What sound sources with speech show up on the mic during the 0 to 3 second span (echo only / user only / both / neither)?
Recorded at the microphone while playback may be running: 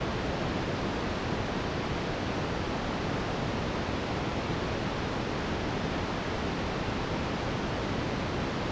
neither